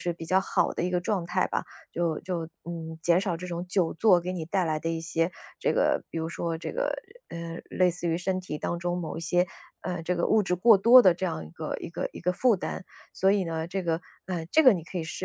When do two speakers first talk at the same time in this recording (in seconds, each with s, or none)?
none